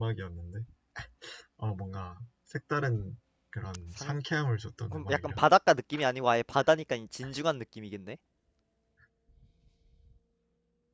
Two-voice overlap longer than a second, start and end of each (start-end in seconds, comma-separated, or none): none